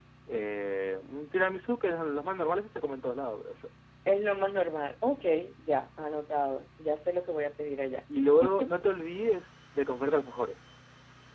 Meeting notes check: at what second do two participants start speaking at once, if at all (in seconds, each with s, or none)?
none